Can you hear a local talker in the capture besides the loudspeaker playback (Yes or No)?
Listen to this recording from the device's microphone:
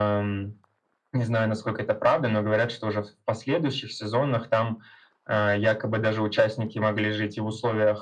No